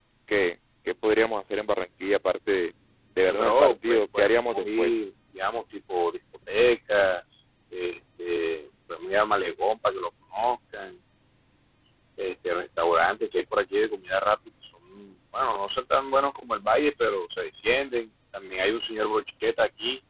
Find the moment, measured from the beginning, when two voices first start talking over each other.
3 s

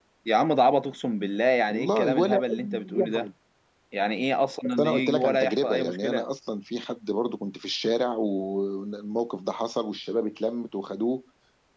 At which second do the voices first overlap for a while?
2 s

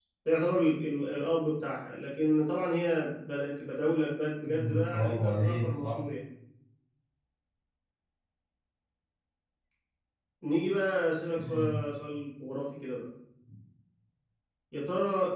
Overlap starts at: 4 s

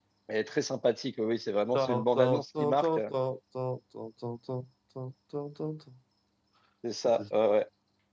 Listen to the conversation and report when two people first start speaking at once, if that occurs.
2 s

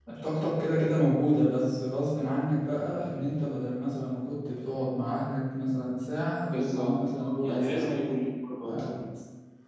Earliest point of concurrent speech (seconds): 7 s

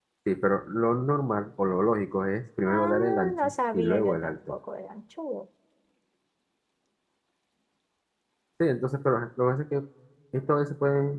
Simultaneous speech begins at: 3 s

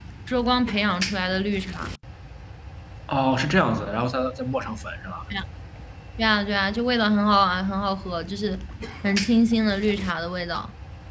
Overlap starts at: none

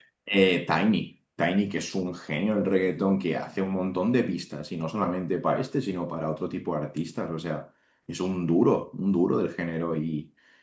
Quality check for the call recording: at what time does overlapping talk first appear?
none

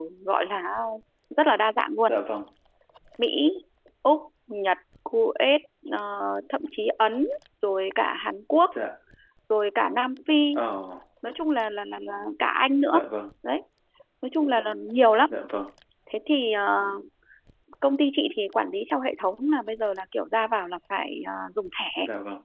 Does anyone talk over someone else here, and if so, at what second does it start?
none

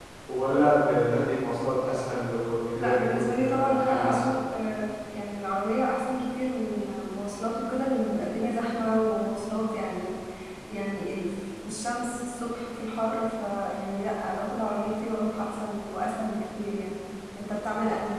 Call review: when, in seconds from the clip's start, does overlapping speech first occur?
3 s

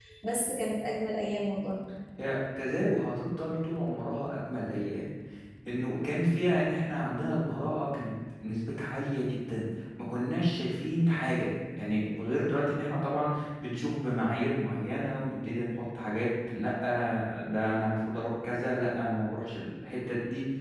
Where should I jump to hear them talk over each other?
none

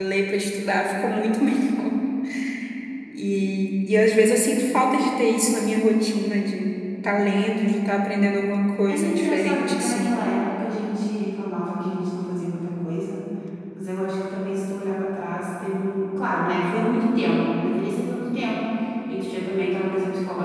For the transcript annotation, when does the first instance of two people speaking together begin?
9 s

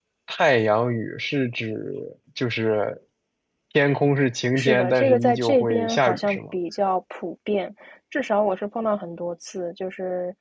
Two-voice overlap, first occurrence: 5 s

